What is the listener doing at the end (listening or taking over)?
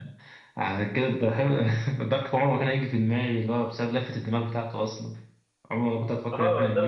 taking over